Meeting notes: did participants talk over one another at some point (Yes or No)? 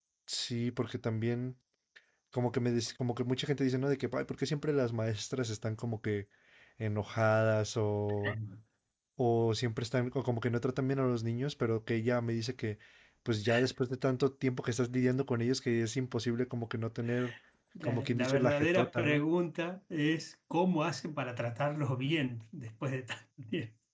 Yes